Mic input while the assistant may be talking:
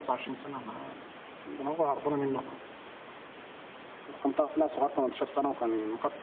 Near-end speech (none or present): none